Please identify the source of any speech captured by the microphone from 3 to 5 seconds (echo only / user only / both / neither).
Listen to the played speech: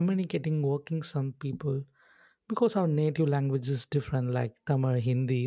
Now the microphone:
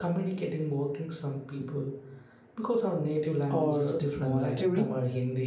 both